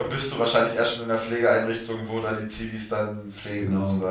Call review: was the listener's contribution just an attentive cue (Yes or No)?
No